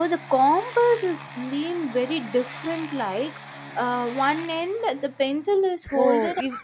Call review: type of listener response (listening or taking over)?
taking over